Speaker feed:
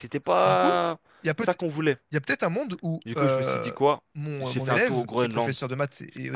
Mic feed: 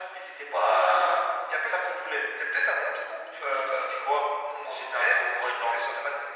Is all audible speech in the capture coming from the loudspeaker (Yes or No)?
Yes